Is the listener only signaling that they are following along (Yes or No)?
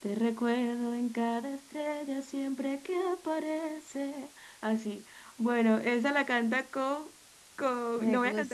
Yes